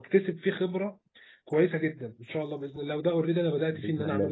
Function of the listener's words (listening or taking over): listening